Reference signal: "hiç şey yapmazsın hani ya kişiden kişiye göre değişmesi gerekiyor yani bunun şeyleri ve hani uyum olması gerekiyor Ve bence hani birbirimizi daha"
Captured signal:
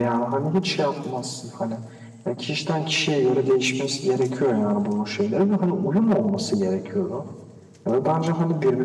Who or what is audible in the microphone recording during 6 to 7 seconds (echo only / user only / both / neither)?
echo only